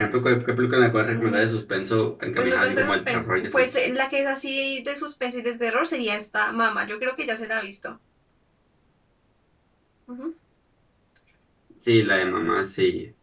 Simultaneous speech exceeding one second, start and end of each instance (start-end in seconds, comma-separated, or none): 2.4-3.7